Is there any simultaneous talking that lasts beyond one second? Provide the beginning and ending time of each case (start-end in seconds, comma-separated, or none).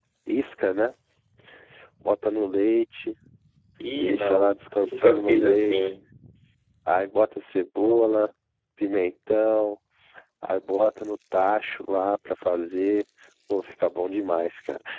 4.0-5.9